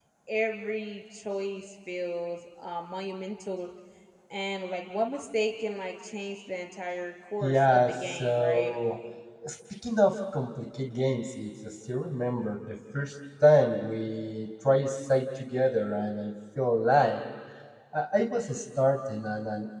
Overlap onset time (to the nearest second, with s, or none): 7 s